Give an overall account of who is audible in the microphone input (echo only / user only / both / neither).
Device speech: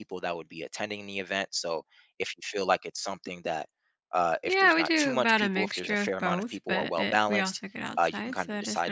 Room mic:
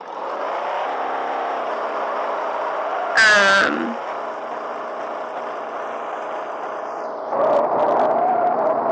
user only